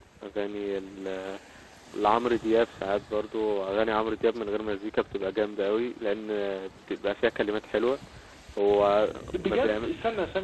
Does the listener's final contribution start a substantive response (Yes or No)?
Yes